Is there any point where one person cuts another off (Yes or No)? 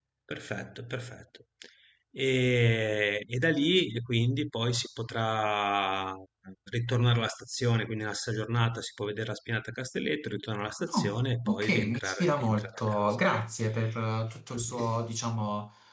Yes